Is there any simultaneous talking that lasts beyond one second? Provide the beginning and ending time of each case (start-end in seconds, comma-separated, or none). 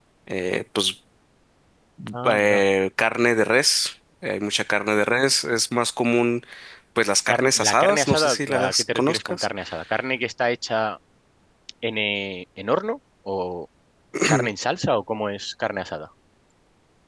7.3-9.5